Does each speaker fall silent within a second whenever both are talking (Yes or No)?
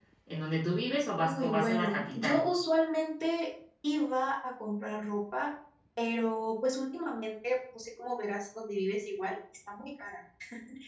No